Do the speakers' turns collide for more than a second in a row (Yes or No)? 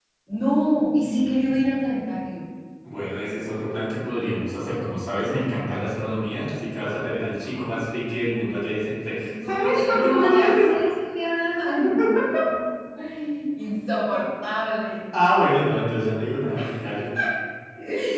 Yes